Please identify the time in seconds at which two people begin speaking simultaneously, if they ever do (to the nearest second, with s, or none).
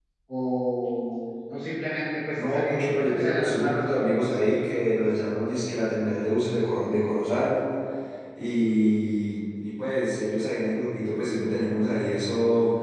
2 s